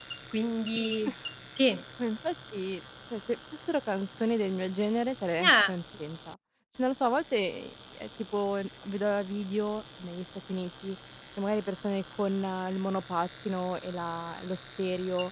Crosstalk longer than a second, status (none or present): none